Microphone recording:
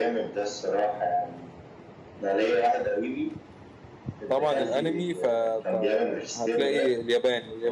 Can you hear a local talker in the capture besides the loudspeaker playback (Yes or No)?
Yes